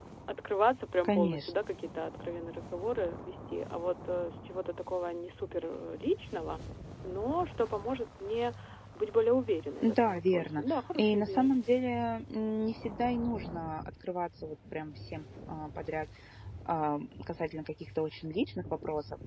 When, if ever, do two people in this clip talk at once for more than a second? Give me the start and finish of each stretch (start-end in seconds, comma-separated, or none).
9.8-11.5